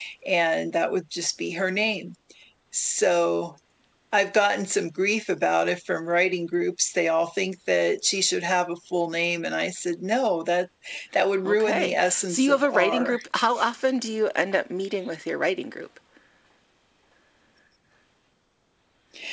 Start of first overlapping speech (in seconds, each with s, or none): 11.5 s